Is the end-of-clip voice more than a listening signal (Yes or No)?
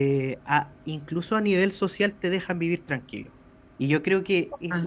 No